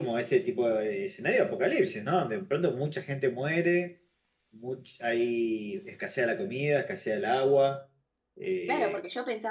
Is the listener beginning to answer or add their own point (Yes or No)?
Yes